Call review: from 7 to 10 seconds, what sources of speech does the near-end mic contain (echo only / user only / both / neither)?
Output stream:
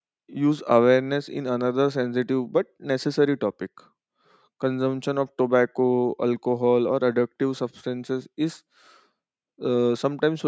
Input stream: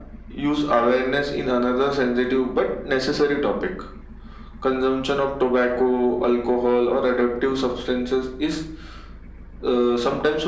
echo only